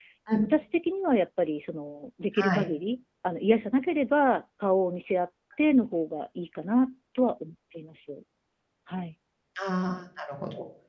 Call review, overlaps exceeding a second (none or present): none